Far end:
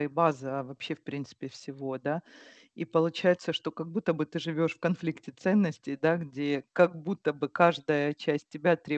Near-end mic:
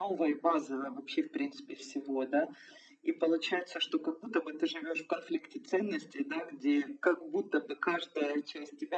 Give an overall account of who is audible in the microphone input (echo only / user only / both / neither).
echo only